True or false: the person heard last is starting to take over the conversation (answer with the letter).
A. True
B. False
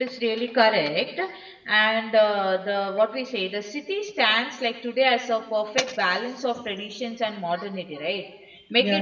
B